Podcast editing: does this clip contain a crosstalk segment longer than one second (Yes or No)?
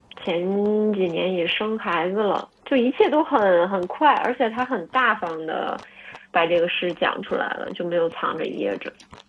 No